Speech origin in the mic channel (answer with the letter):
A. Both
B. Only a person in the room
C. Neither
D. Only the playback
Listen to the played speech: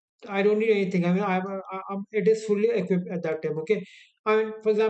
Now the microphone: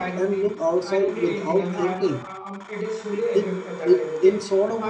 A